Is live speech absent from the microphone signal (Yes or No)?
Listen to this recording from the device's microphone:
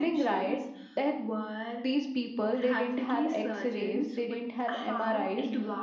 Yes